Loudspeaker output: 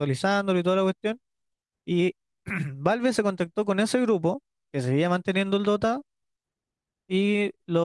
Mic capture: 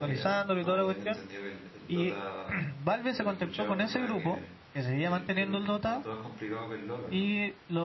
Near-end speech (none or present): present